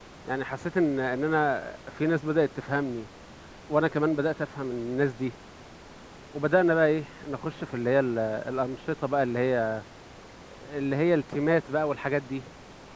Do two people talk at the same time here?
No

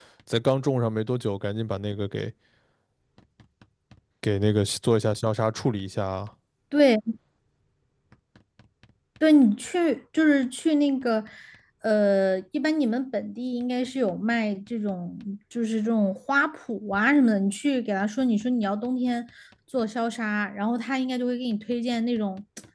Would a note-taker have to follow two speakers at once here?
No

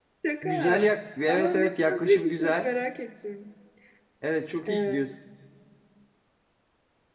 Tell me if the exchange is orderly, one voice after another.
No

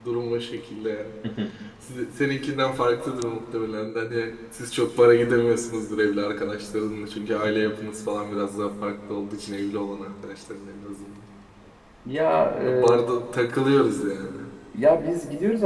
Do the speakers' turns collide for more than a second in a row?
No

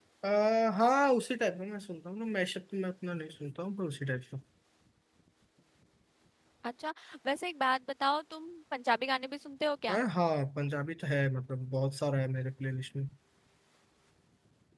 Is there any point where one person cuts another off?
No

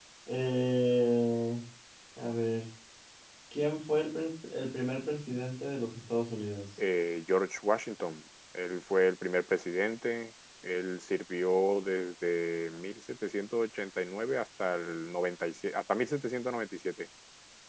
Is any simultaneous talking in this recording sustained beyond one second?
No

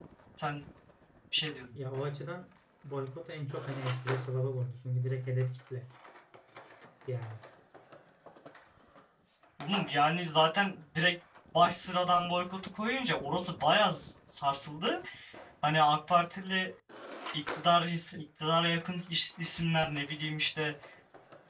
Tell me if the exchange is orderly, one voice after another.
Yes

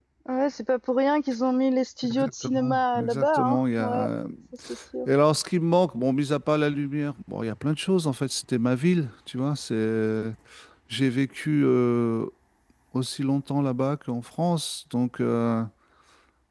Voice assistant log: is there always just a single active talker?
No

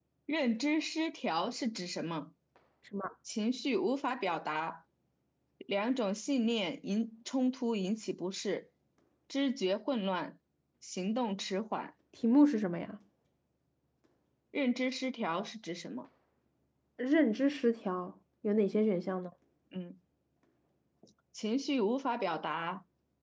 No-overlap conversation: Yes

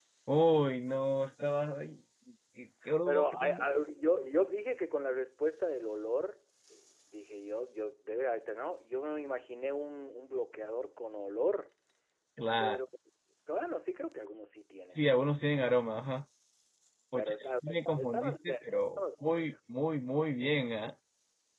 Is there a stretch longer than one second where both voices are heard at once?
Yes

